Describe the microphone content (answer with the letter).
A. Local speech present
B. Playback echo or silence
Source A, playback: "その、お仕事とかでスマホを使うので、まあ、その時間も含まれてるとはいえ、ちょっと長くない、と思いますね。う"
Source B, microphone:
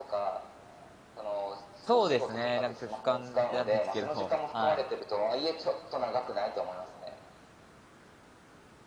A